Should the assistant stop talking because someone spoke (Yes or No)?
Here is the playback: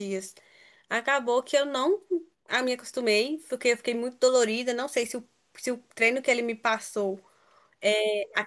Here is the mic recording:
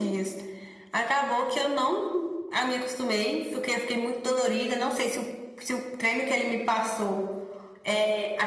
No